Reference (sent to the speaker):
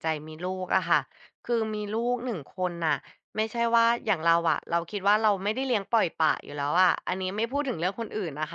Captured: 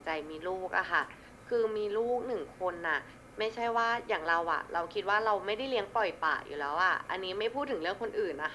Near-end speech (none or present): none